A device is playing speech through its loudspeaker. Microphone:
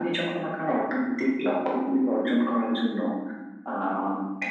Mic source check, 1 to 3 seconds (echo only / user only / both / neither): echo only